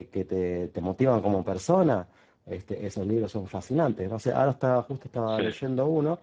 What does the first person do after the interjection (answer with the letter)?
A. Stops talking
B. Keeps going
B